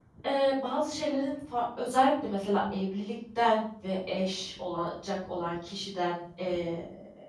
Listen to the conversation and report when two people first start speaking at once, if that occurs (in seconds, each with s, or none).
none